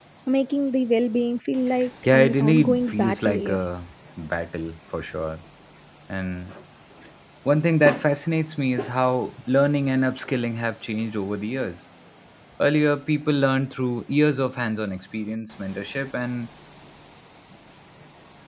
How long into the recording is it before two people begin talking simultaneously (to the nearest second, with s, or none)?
2 s